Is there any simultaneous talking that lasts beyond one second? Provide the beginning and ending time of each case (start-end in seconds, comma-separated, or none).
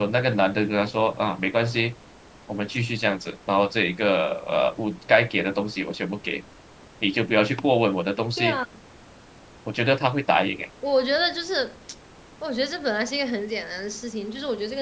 none